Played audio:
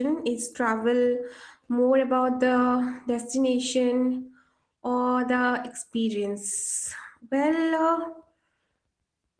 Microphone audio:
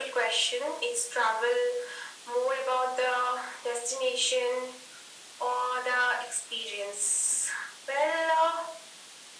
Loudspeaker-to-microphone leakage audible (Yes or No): Yes